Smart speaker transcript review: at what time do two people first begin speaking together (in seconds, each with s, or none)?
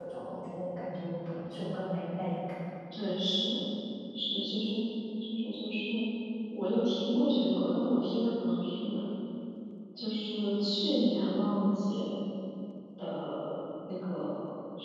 none